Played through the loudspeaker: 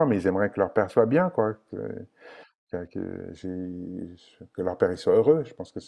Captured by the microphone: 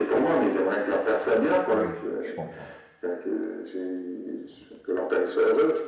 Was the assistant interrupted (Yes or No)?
Yes